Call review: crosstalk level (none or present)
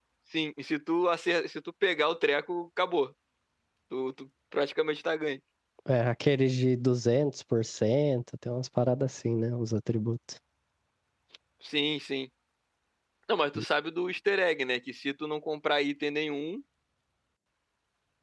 none